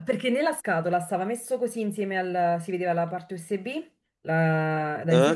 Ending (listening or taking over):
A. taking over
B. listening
B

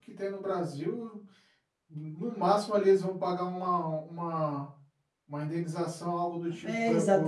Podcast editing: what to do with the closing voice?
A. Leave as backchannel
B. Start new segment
B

